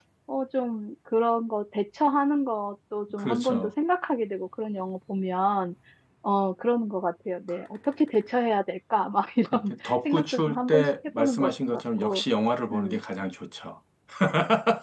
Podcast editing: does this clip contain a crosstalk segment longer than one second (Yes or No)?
Yes